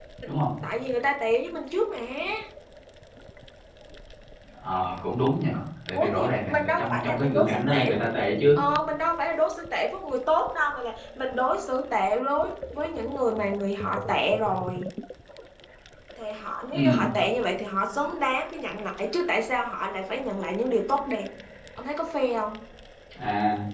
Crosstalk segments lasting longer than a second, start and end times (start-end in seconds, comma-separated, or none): 6.0-7.9